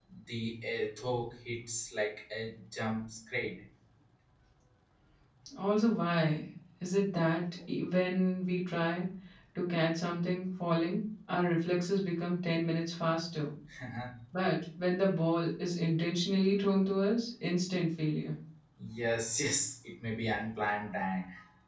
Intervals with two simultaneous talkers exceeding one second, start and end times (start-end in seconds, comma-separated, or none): none